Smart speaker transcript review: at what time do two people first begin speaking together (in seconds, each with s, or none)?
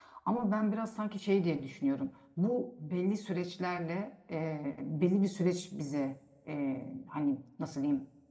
none